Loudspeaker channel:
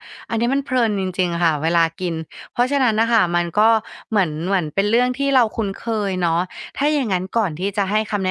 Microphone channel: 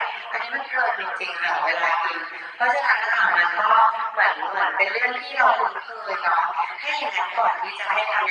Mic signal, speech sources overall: echo only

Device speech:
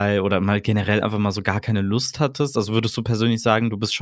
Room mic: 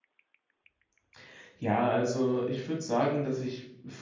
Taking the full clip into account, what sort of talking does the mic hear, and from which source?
user only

